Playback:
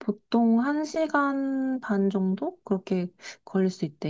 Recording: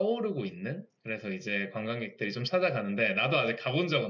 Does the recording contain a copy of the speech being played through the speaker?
No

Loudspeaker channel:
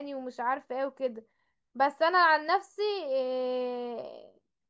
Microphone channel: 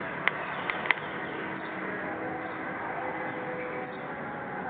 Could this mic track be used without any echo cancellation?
Yes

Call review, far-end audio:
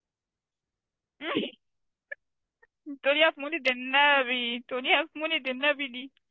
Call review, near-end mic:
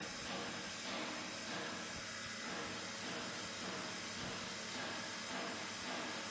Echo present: No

